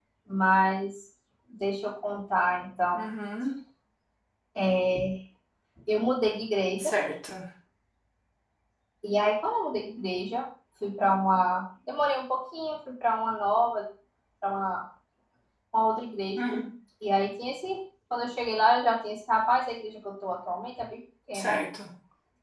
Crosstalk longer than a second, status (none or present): none